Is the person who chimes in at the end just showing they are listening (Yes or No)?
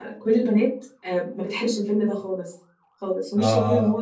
Yes